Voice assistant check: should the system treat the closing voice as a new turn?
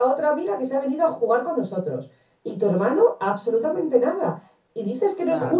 No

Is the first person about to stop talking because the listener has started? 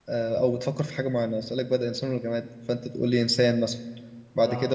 No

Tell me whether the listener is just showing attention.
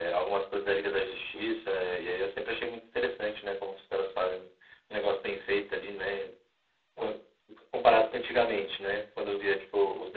Yes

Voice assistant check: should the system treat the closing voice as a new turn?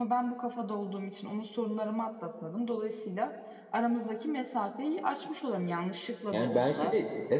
Yes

